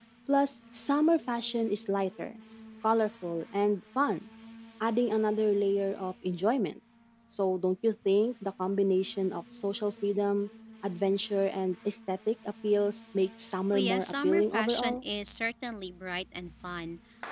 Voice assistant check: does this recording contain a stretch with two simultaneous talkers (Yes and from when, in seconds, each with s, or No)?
Yes, from 13.7 s